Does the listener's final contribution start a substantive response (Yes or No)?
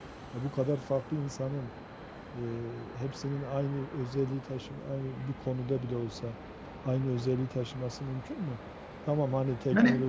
Yes